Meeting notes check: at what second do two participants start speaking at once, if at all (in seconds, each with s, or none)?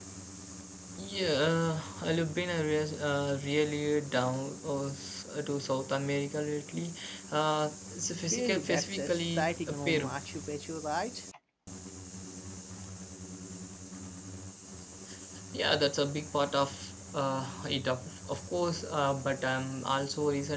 8.3 s